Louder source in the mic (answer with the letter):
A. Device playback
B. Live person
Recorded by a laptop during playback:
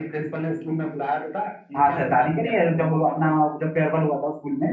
B